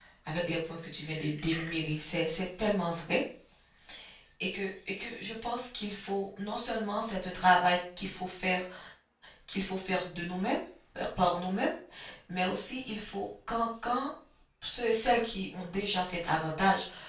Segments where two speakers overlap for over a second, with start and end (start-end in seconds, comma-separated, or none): none